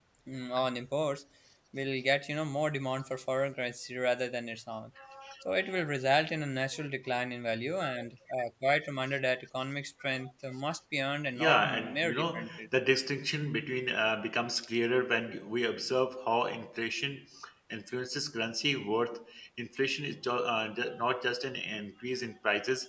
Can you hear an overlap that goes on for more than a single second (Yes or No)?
Yes